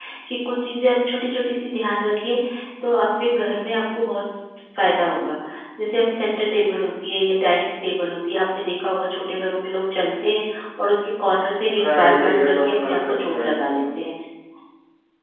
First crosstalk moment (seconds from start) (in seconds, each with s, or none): 11.8 s